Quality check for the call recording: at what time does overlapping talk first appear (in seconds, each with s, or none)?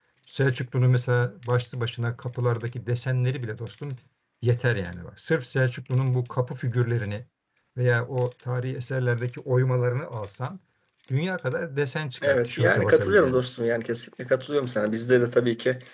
12.2 s